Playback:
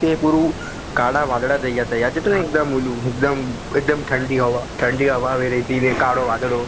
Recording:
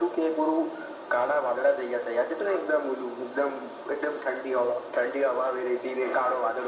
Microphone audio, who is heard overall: echo only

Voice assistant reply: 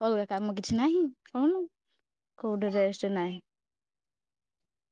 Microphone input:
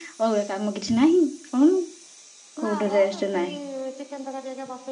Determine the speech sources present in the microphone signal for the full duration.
both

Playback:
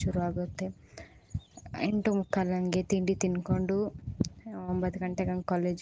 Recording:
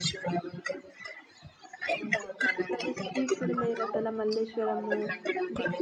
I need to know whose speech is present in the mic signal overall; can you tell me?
both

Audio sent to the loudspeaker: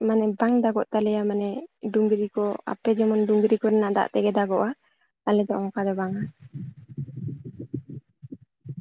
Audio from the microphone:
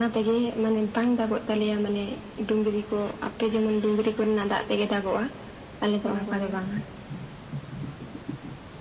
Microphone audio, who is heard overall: both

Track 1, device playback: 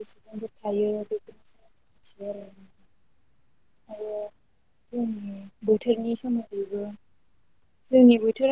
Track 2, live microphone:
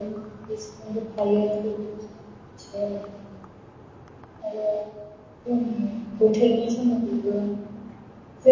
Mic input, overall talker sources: echo only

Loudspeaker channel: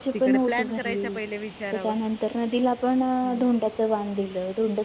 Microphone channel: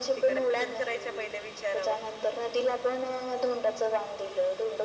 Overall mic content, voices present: echo only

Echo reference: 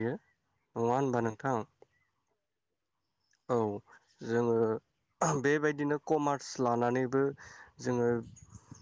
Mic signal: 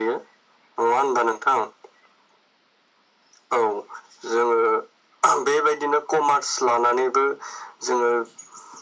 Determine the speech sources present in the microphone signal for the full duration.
echo only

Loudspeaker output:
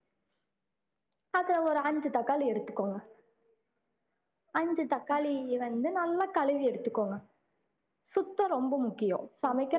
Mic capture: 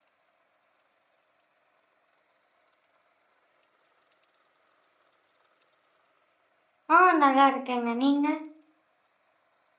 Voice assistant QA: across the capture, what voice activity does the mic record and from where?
user only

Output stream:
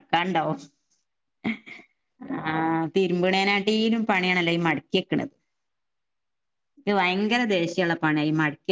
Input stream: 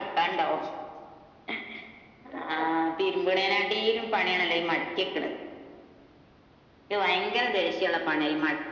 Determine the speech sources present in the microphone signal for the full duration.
echo only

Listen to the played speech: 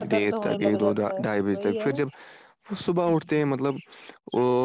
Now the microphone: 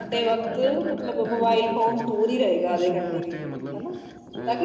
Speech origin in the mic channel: both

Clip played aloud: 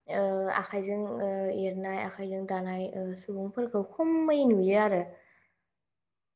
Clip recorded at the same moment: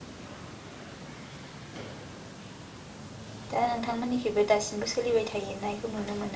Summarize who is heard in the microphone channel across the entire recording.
user only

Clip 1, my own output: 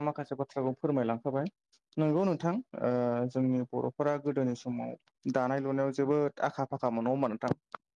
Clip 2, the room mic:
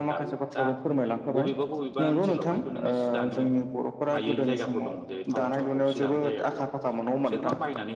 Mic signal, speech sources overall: both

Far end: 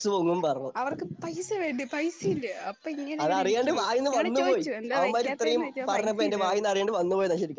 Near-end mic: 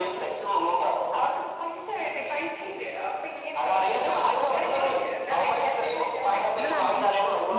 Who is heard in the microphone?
both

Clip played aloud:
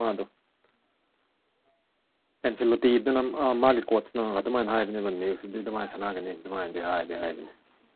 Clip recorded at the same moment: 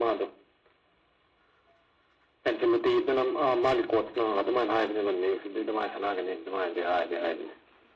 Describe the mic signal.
echo only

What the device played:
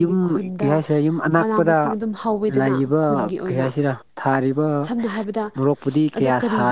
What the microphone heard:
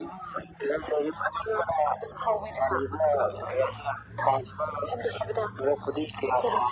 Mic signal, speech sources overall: echo only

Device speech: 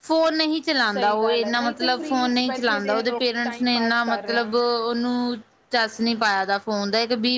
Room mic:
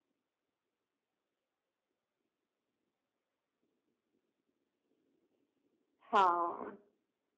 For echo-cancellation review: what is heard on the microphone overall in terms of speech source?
user only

